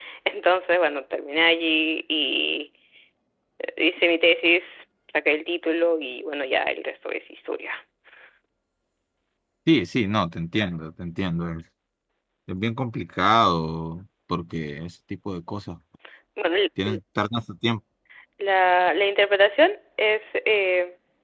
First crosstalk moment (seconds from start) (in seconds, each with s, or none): none